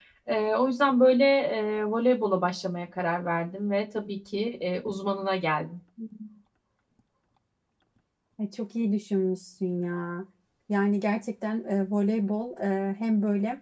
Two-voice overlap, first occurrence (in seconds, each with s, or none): none